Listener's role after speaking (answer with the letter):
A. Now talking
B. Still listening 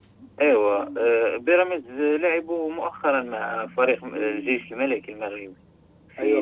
A